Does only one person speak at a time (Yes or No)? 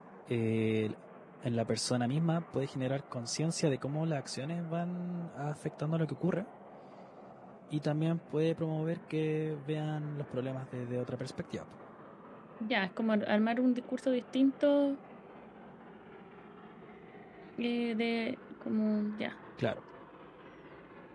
Yes